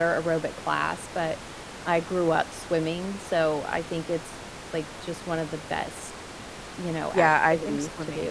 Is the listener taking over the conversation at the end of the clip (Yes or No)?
Yes